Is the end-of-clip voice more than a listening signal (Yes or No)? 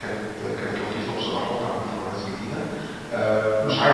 No